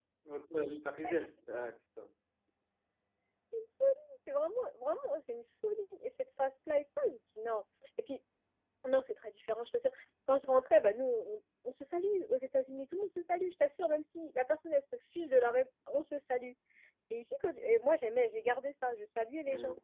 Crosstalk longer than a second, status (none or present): none